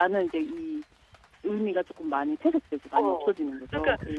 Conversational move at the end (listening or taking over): taking over